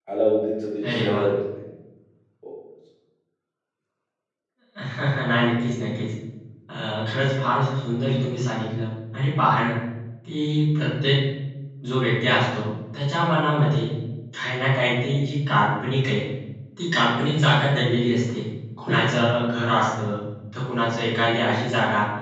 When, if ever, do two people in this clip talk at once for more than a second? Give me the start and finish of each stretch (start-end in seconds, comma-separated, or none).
none